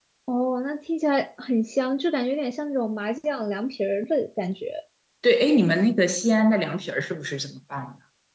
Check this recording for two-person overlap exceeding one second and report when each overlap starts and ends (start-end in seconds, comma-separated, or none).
none